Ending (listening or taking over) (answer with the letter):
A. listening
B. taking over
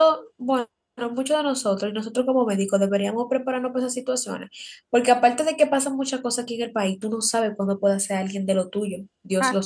B